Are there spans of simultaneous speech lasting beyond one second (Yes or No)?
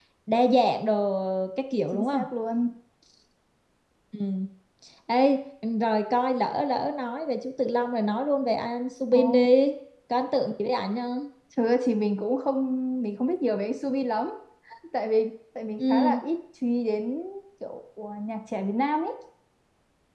No